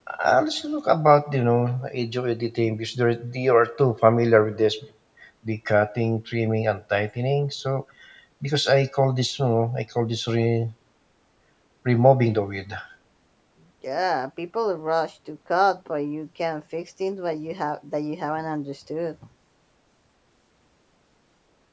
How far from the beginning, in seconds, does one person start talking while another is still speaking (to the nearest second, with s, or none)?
none